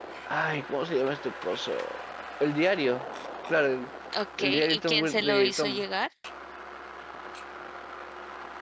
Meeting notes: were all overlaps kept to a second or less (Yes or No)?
No